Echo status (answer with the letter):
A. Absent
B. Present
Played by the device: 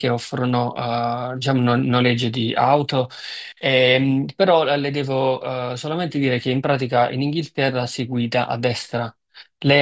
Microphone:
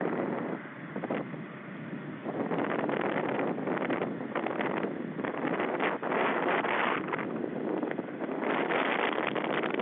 A